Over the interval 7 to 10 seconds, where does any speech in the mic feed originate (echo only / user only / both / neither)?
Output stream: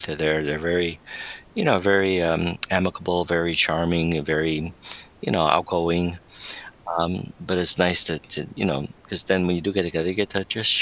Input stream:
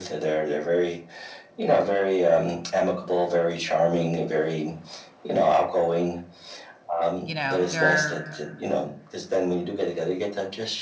both